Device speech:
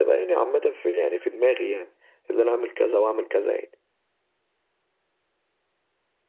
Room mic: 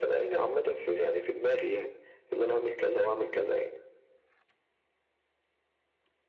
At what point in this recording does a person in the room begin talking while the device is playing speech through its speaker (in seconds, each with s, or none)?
none